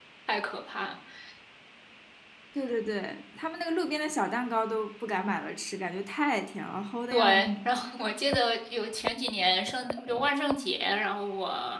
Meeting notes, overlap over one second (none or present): none